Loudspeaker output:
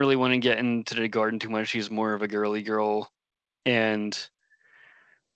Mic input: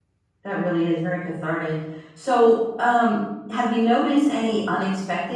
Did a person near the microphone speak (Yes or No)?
Yes